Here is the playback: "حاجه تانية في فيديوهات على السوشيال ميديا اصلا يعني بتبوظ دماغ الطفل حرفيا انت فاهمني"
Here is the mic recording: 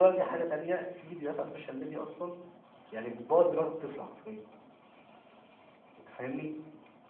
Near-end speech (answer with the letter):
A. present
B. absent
B